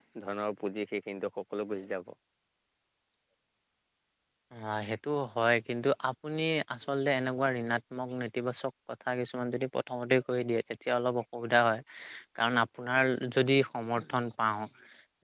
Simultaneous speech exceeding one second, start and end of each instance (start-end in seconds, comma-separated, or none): none